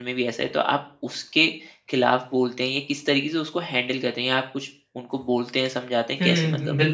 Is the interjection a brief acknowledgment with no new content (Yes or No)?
No